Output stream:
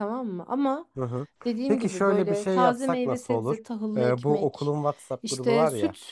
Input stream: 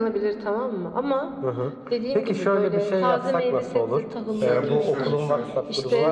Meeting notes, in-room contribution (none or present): present